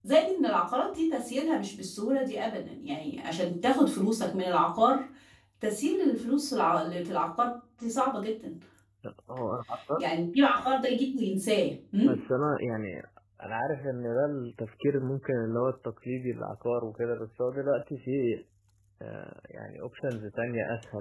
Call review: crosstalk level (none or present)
none